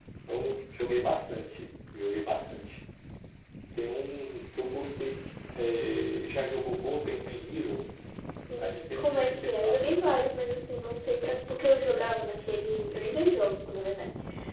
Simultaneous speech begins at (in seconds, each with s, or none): 8.6 s